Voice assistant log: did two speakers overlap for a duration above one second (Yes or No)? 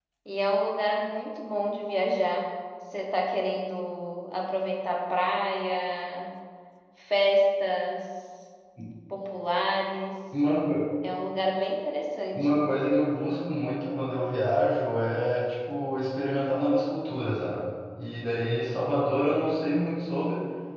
No